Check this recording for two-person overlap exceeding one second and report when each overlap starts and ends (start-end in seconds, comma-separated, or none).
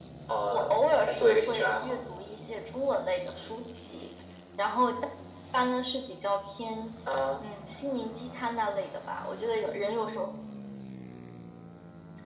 0.5-2.0